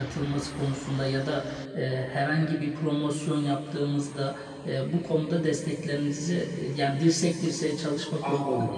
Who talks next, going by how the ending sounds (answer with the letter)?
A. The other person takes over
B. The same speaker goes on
A